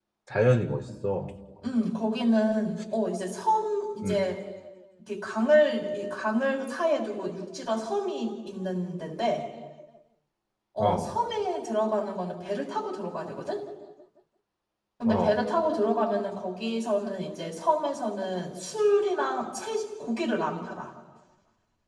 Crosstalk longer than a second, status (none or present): none